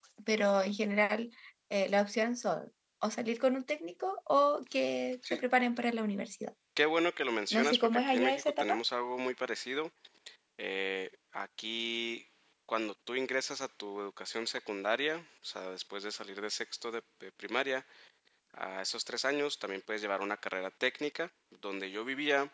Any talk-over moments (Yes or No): Yes